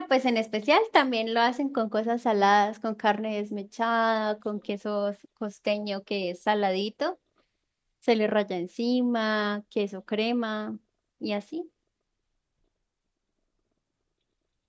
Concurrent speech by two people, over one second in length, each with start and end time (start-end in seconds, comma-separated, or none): none